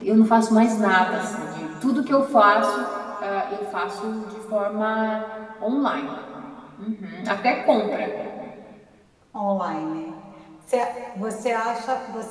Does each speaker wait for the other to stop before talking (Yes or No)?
Yes